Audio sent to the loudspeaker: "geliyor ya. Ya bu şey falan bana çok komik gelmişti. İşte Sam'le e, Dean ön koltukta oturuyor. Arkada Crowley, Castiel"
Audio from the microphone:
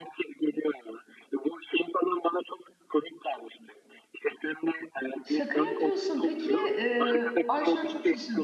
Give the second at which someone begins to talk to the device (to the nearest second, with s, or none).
5 s